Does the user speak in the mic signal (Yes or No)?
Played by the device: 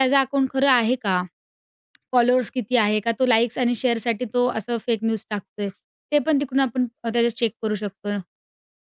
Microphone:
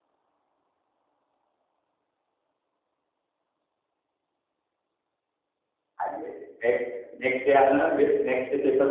Yes